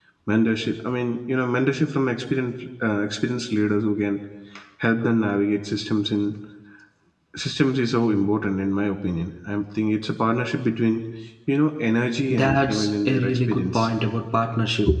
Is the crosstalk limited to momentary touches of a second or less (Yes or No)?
No